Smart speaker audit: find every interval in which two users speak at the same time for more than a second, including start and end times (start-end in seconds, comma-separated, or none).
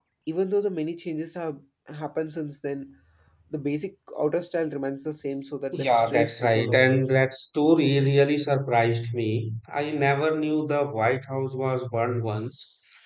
5.7-7.0